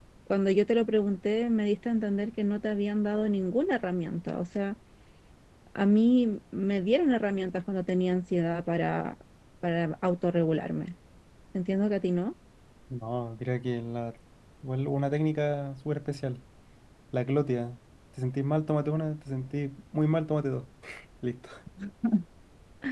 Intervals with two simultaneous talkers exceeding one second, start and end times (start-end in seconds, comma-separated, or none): none